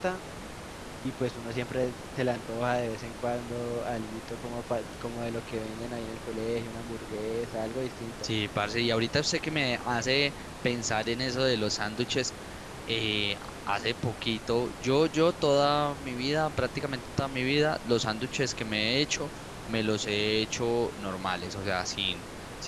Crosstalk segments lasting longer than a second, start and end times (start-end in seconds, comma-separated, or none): none